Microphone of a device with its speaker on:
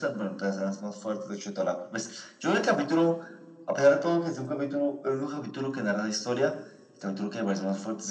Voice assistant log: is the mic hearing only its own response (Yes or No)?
Yes